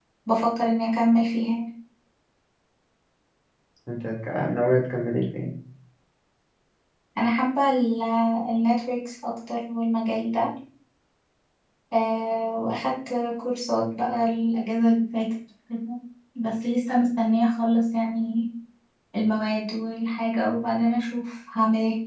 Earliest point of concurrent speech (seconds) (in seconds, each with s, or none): none